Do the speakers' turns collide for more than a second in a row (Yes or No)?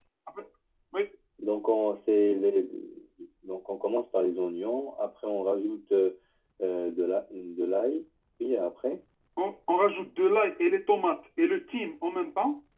No